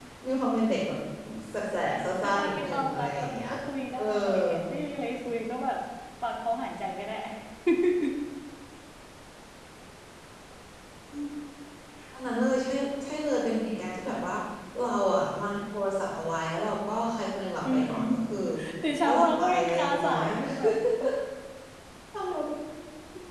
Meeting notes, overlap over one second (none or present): present